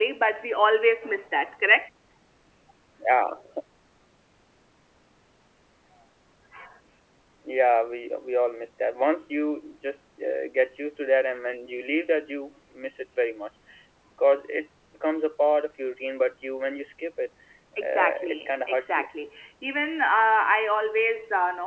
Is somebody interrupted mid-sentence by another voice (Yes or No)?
Yes